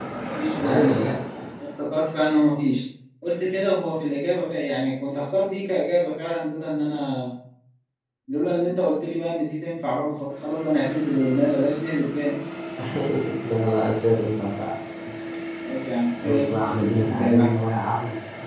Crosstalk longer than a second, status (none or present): present